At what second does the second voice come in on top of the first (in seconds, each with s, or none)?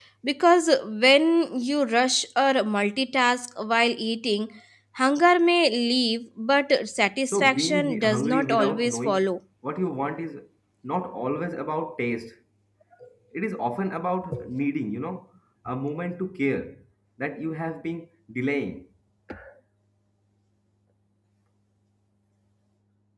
7.3 s